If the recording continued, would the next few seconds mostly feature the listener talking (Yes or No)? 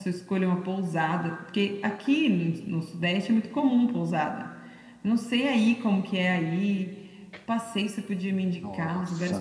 No